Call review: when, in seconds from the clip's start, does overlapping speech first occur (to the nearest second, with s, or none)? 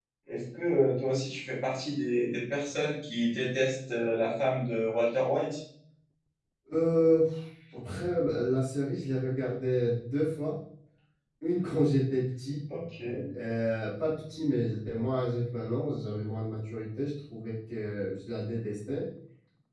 none